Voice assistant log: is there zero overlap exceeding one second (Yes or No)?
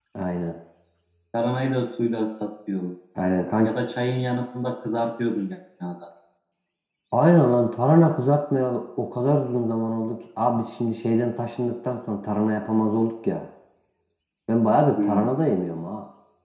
Yes